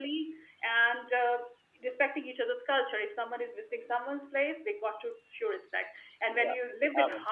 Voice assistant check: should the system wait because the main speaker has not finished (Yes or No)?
No